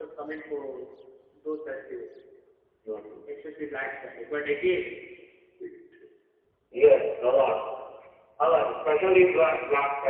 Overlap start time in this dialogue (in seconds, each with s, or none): none